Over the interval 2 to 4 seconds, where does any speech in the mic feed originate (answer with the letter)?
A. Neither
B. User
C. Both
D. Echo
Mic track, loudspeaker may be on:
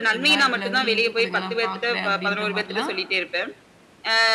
C